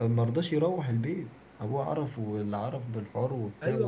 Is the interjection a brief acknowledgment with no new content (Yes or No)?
No